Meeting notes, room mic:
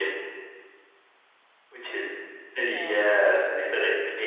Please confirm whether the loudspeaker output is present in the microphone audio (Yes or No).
Yes